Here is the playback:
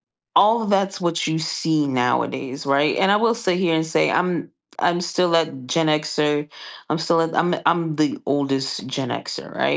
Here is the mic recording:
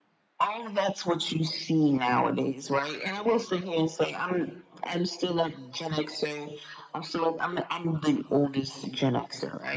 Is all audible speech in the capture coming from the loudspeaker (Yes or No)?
Yes